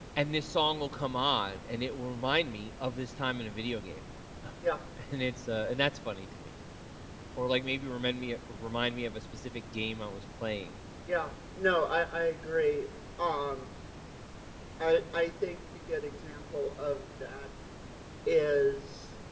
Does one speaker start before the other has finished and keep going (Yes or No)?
No